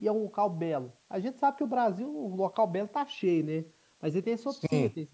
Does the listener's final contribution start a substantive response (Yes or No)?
No